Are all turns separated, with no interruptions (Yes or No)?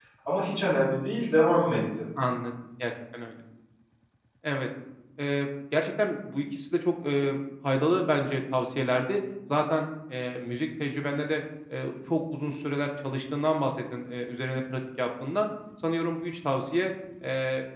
Yes